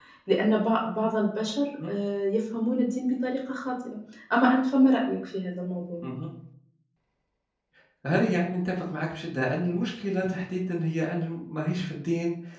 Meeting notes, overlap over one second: none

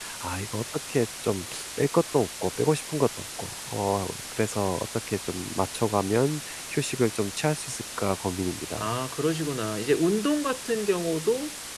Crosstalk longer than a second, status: none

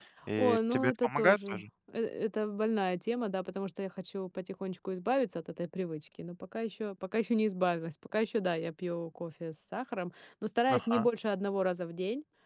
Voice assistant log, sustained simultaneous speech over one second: present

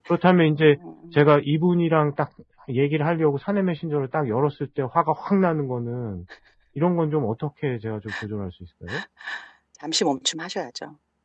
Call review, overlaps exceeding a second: none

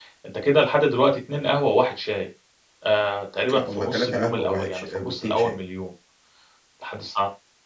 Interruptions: present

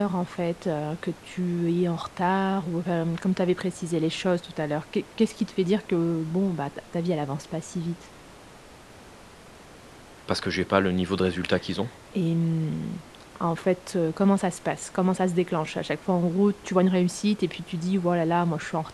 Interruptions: none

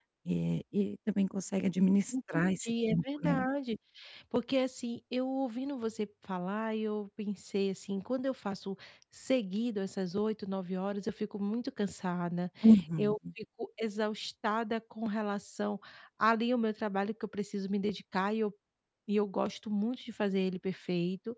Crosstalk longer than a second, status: present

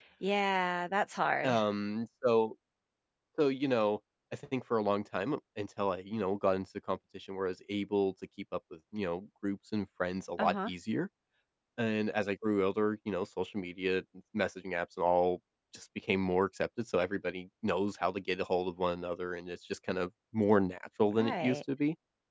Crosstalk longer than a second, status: none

